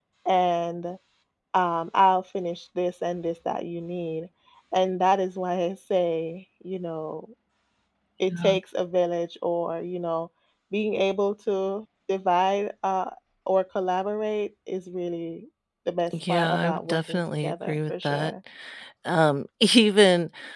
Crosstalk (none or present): present